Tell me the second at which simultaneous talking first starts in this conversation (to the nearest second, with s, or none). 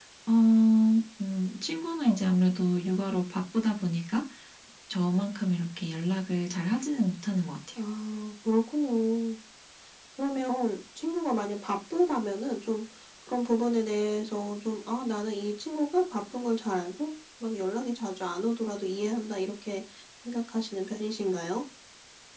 none